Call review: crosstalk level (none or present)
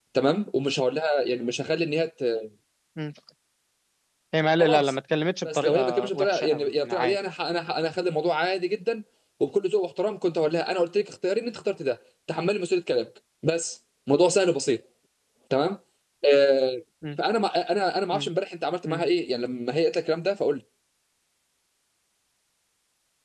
present